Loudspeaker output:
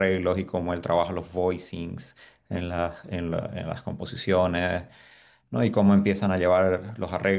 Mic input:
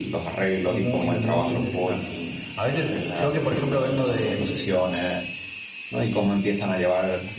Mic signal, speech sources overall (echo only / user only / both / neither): both